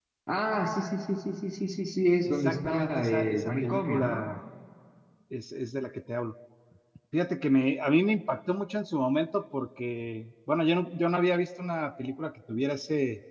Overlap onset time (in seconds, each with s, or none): 2.2 s